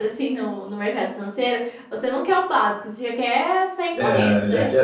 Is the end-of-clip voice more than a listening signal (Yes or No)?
Yes